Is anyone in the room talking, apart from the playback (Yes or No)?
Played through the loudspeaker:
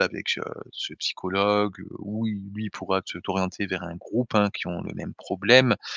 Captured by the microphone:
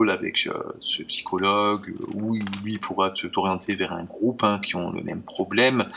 No